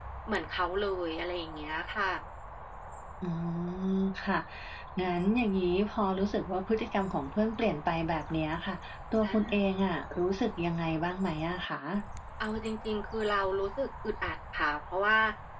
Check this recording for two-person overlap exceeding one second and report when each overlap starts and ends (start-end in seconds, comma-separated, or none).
none